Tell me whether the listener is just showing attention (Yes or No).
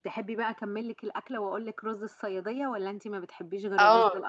No